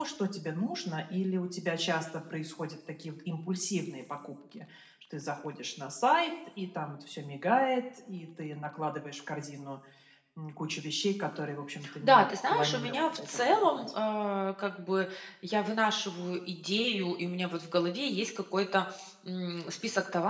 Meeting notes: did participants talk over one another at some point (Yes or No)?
Yes